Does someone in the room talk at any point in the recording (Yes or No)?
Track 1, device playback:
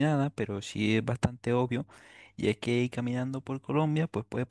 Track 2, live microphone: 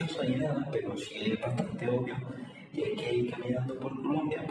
No